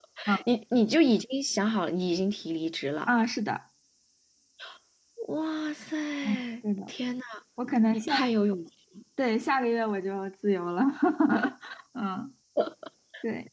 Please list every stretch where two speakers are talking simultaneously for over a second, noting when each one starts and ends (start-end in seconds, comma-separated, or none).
none